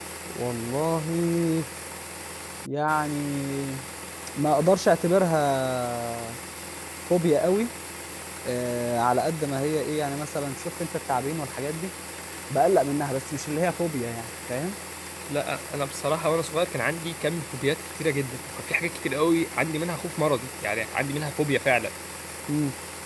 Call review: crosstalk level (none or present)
none